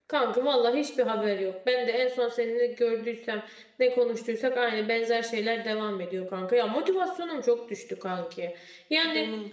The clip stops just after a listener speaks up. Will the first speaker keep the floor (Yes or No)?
Yes